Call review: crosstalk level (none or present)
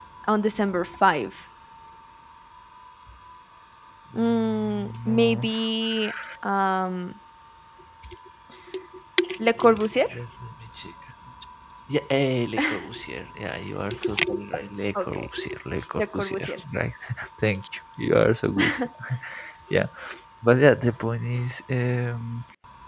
present